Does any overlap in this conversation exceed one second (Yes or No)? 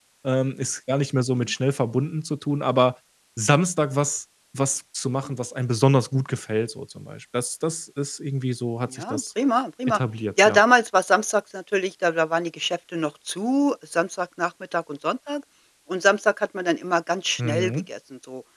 No